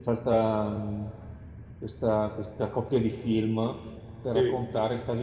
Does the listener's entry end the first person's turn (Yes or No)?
No